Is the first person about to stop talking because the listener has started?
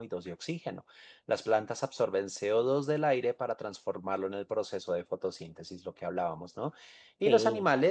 No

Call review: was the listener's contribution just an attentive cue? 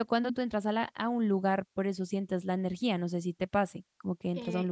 No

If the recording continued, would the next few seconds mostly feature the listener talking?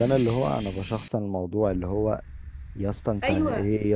No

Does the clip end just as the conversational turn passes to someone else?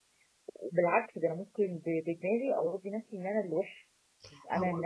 Yes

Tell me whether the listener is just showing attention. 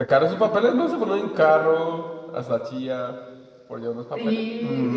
No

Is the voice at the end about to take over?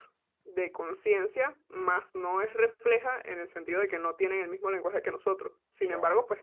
No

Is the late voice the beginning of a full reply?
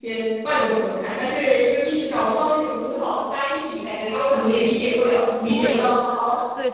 Yes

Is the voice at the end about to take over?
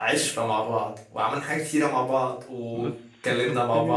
Yes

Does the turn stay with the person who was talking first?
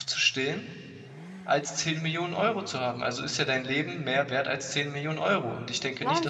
No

